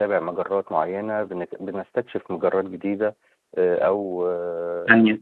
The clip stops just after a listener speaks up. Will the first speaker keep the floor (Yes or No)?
No